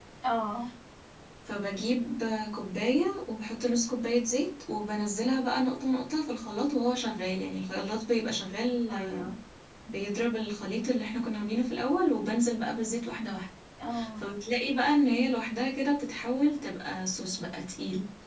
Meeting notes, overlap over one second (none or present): none